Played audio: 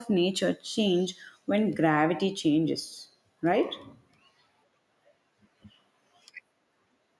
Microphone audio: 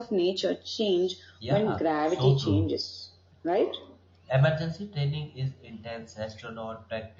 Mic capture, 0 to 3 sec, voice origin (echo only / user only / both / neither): both